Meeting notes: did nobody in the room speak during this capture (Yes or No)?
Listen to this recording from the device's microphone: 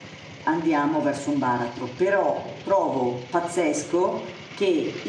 No